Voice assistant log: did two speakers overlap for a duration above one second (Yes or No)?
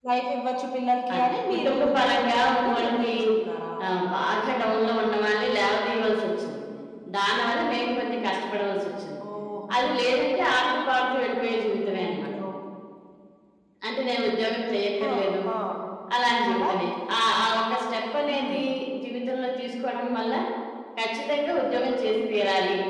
Yes